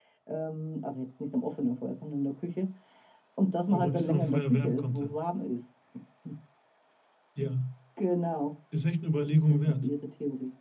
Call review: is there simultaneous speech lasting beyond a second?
Yes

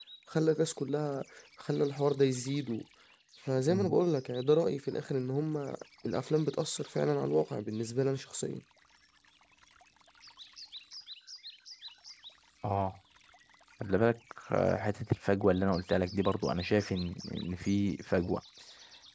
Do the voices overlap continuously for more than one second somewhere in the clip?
No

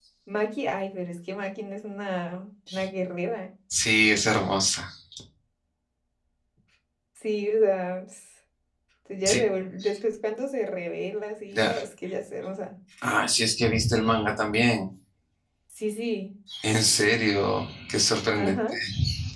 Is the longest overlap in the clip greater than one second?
No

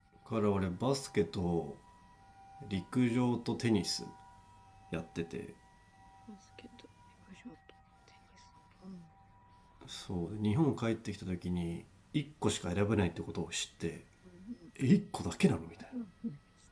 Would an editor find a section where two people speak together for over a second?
No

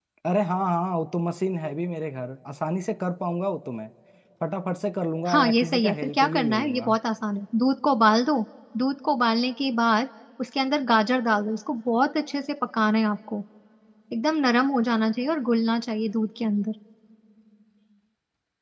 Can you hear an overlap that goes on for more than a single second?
Yes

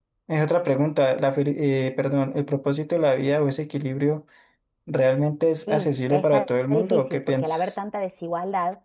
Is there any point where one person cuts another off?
Yes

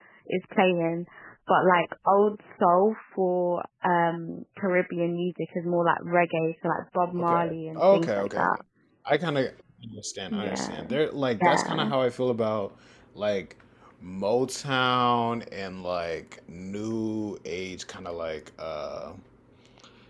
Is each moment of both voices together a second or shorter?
No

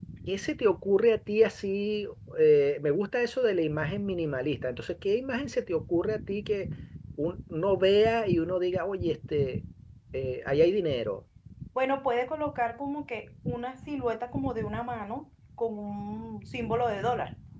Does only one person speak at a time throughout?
Yes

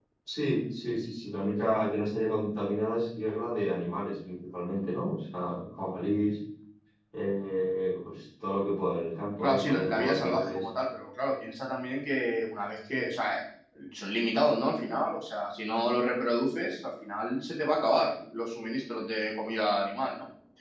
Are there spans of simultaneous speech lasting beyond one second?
Yes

